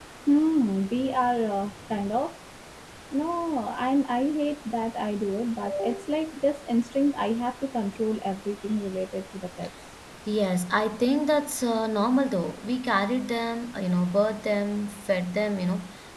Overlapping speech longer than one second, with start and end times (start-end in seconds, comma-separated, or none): none